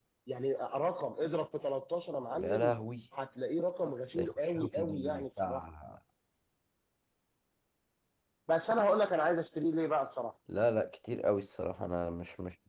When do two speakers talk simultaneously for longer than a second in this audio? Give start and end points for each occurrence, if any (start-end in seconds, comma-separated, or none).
4.2-5.6